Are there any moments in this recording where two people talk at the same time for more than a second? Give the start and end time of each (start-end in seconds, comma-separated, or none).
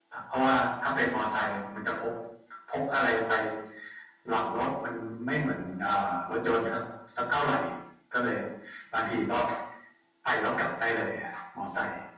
none